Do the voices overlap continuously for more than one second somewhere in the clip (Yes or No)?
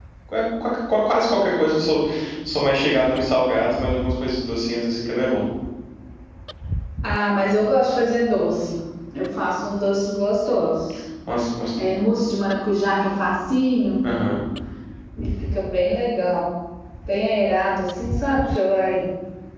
No